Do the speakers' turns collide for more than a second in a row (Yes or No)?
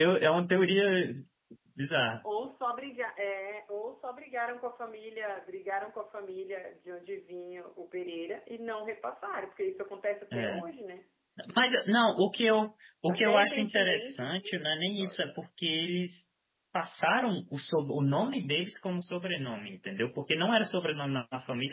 Yes